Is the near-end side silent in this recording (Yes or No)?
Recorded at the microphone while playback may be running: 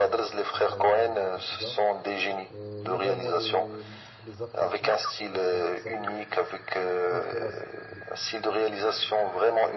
No